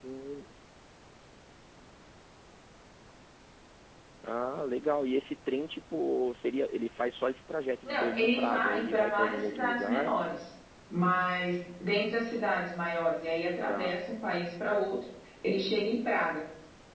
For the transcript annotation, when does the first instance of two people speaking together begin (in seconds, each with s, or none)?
7.9 s